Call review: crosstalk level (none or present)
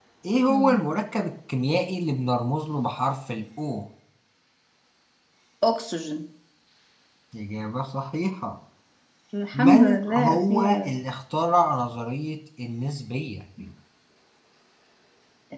present